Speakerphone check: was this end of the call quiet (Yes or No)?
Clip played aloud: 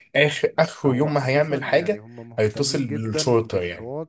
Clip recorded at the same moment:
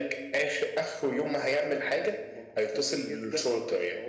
Yes